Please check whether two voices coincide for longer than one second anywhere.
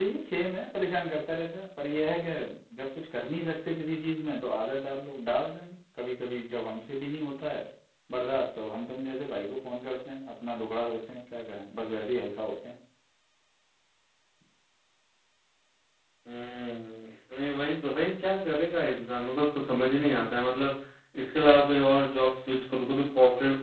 No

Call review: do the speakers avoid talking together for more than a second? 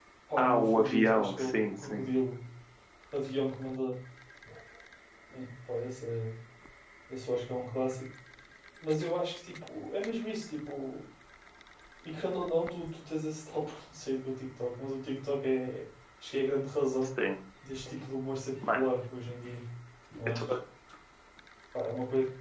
No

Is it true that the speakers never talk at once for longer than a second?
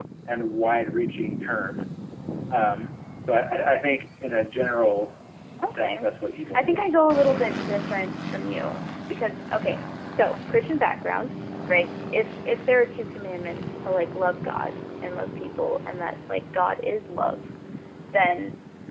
Yes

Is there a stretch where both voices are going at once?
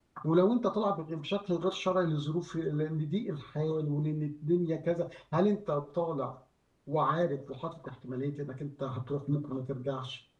No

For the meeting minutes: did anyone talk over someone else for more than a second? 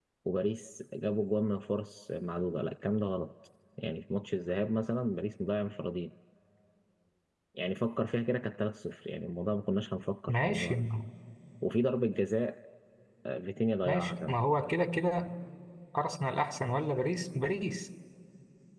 No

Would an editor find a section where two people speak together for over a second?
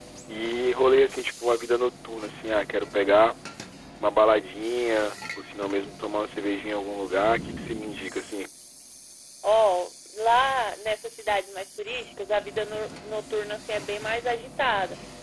No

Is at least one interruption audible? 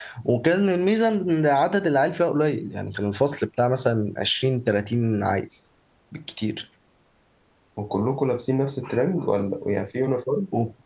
No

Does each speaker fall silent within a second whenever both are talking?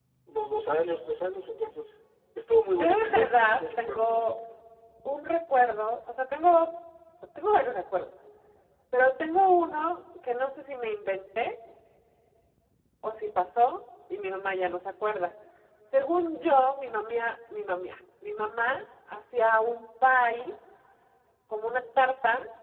No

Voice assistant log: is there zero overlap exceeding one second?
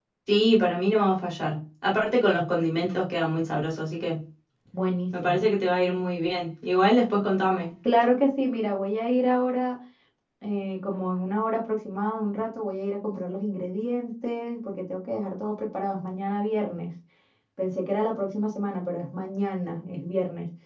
Yes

